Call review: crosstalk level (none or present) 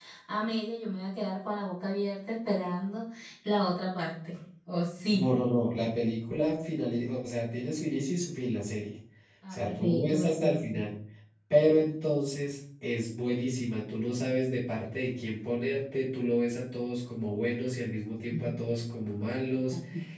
present